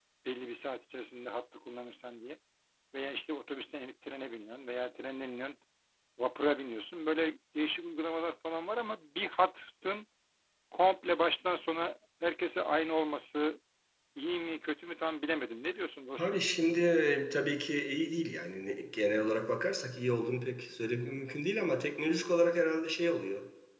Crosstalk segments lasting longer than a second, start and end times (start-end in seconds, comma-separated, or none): none